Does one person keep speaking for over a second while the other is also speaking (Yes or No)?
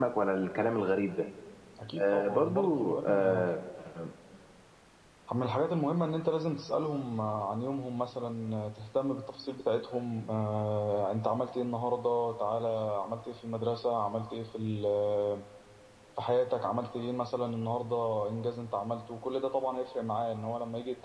Yes